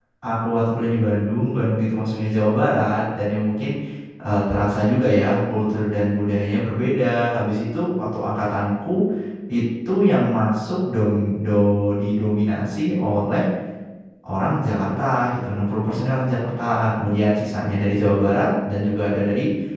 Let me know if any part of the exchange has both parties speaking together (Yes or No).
No